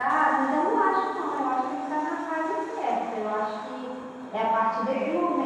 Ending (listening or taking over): listening